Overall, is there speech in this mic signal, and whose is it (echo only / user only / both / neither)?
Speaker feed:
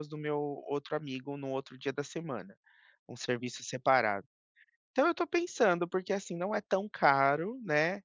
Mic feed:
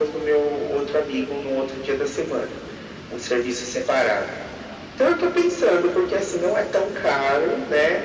echo only